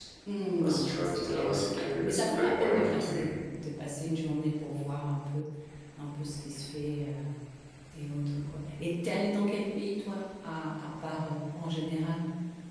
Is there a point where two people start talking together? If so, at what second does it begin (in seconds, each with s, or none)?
0.6 s